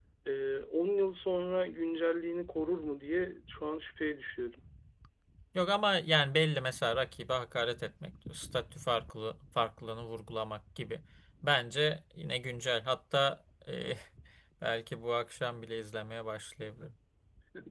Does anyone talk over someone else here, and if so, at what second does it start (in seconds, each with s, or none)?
none